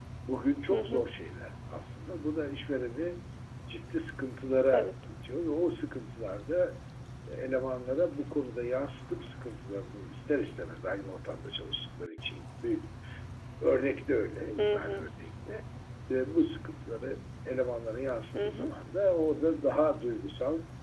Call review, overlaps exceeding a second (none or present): none